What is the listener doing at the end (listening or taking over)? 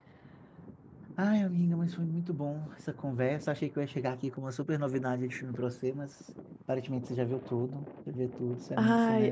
taking over